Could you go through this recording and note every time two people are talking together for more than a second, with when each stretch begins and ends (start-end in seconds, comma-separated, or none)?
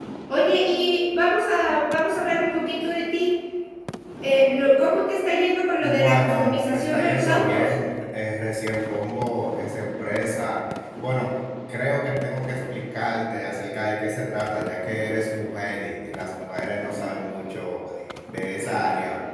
5.8-7.7